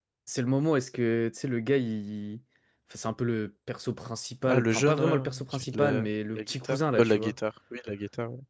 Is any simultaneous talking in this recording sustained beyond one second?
Yes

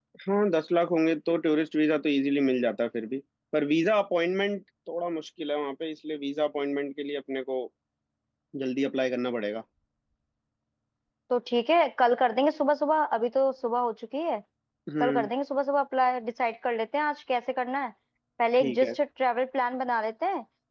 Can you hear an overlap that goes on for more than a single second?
No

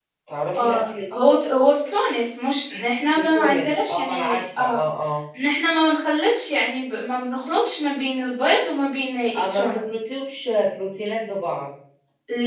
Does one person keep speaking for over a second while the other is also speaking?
Yes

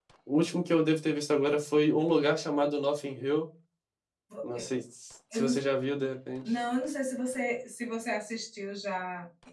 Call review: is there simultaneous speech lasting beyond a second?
No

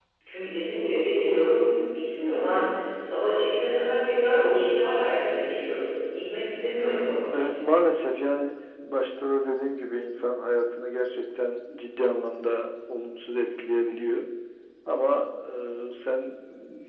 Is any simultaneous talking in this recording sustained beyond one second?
No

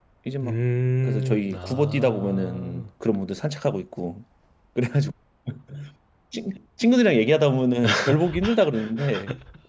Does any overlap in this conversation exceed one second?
Yes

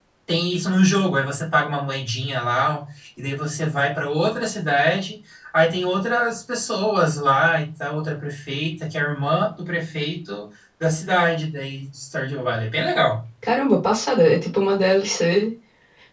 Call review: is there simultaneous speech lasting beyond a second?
No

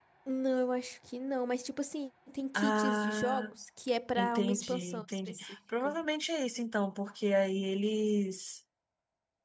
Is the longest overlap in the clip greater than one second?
Yes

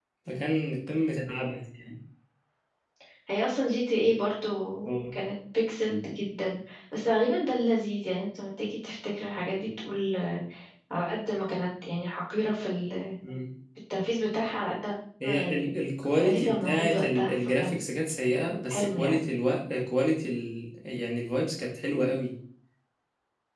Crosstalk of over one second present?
Yes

